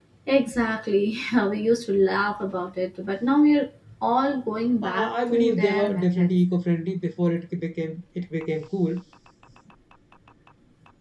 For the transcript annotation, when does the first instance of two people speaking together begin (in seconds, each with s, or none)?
4.8 s